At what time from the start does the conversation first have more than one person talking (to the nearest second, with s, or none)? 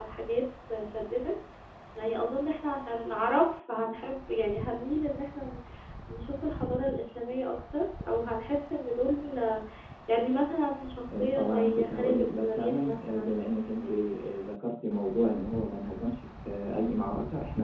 11 s